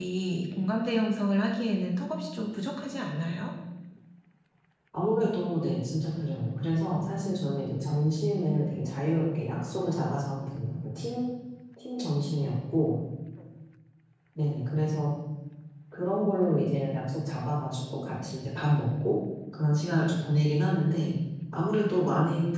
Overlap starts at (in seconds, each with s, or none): none